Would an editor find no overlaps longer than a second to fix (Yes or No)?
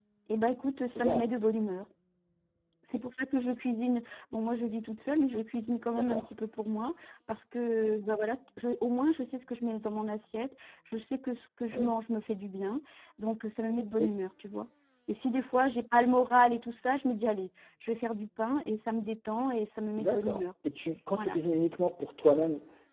Yes